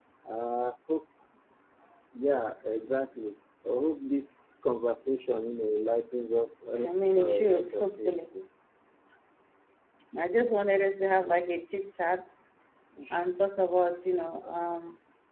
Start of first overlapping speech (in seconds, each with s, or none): 6.8 s